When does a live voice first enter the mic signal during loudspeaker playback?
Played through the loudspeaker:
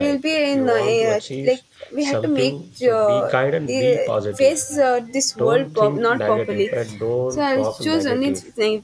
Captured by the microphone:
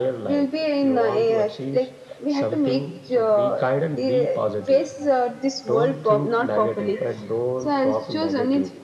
none

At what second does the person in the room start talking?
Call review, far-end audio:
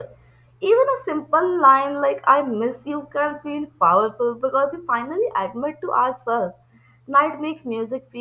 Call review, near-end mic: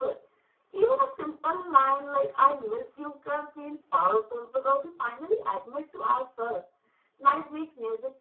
none

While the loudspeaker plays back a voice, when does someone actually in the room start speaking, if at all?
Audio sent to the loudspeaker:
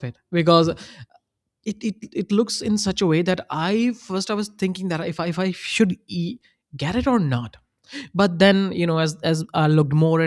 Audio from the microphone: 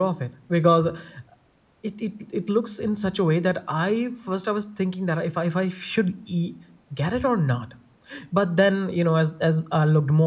none

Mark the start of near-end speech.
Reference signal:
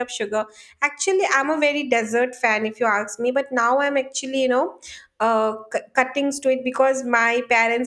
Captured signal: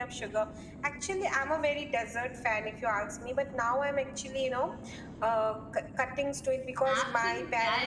6.8 s

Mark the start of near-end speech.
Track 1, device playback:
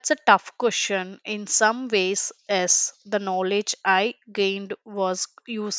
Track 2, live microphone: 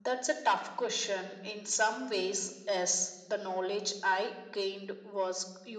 none

